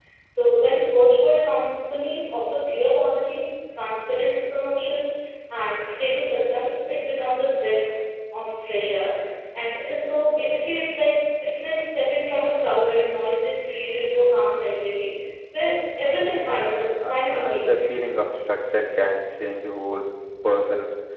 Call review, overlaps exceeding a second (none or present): present